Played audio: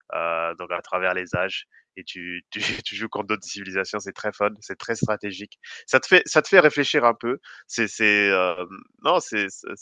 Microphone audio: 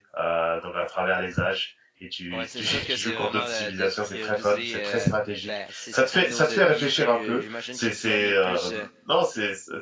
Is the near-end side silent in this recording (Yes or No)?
No